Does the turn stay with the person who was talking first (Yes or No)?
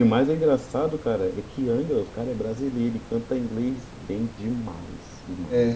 No